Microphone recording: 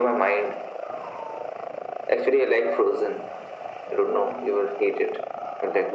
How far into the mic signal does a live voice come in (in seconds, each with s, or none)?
none